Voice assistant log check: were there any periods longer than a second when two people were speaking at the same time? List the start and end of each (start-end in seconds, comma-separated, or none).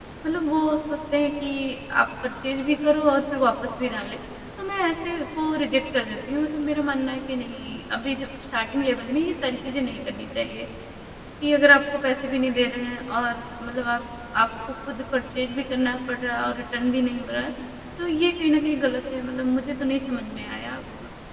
none